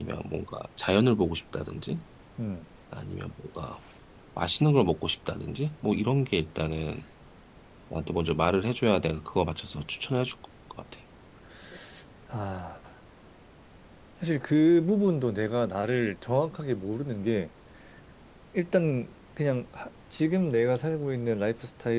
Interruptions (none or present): none